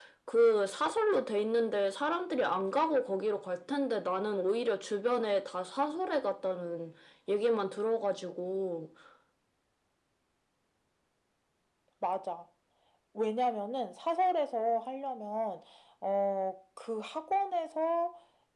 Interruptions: none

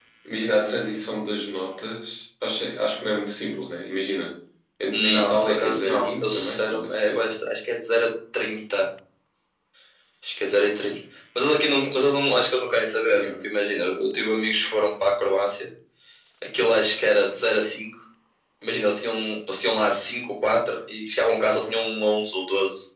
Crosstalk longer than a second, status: present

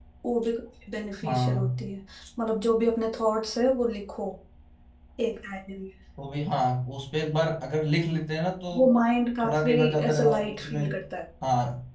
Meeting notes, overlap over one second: present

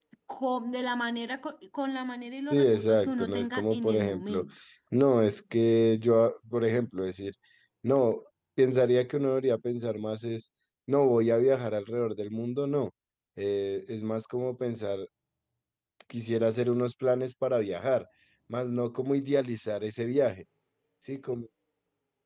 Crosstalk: present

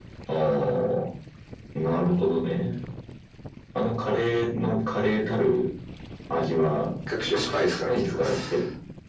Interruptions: present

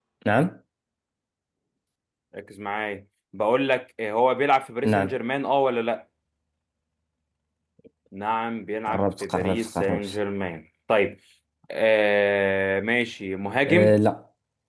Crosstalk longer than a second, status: present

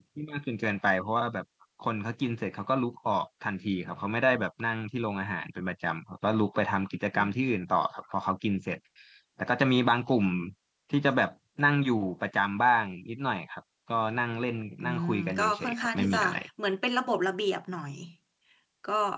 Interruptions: present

